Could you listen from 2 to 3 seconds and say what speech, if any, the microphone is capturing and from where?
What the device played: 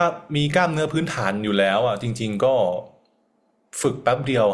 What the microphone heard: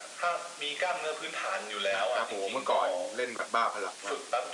both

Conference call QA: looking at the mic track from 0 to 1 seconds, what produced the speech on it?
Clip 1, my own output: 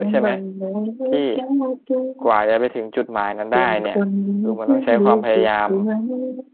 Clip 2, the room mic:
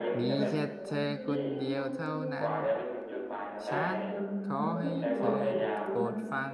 both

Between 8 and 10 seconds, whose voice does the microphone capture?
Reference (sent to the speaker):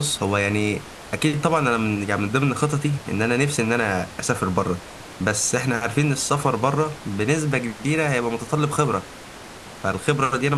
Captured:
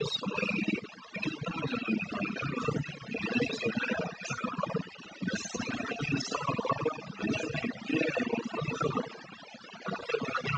echo only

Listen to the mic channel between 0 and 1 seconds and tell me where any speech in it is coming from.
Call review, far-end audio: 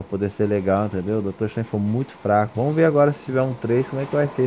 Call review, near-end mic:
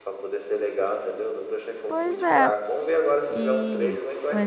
echo only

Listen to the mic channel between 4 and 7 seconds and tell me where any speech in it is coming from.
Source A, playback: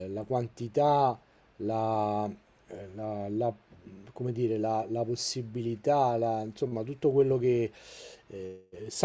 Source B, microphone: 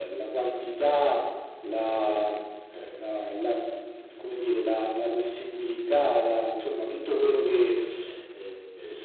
echo only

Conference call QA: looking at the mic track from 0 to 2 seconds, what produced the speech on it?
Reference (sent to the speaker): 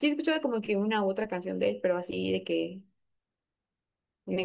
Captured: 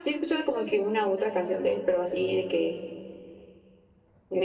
echo only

